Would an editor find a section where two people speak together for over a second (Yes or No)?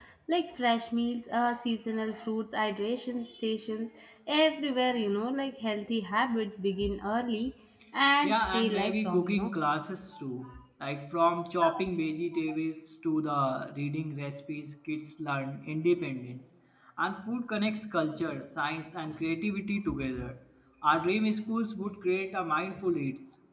Yes